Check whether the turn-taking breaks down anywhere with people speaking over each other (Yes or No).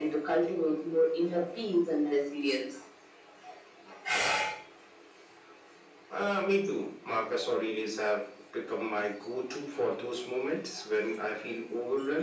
No